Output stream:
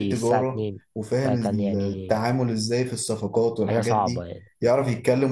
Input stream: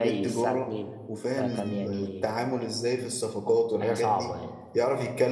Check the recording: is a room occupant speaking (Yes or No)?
No